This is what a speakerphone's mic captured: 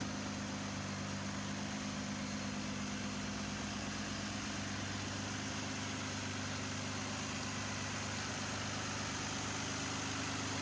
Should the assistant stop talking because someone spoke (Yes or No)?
No